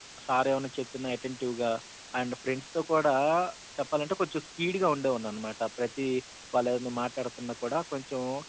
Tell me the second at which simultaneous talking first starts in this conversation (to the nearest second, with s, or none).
none